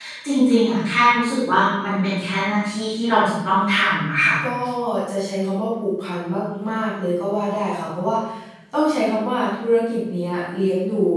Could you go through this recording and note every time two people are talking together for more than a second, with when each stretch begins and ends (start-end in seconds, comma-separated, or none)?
none